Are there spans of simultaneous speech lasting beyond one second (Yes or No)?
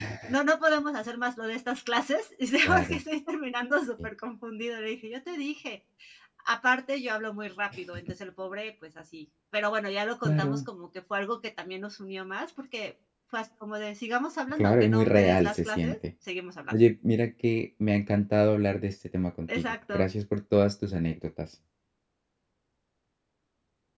Yes